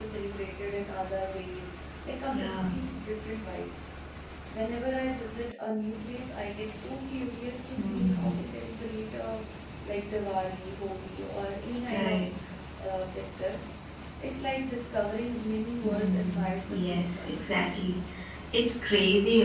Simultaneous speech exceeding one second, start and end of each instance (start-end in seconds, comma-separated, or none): 15.8-17.6